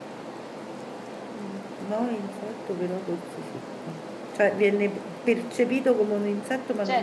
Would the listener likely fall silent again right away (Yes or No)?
No